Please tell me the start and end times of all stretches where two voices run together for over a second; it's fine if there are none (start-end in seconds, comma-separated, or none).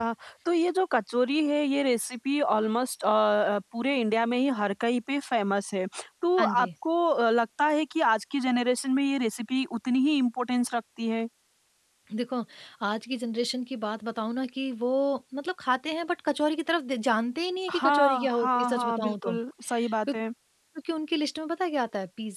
17.7-19.3